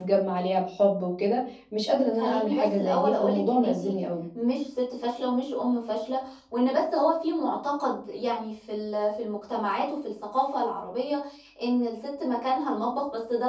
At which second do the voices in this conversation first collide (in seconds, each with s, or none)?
2.2 s